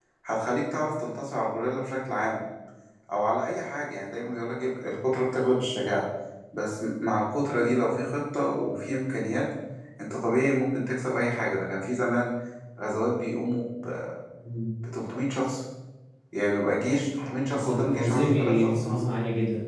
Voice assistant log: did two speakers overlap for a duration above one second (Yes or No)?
Yes